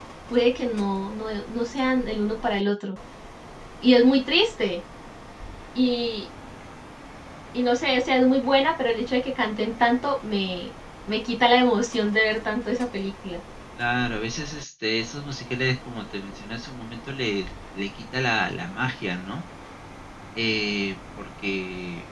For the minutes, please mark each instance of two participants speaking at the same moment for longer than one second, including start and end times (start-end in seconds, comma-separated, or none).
none